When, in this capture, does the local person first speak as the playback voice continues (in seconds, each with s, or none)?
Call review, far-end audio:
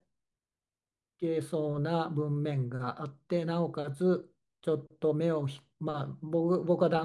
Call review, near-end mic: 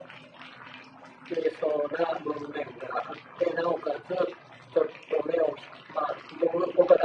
none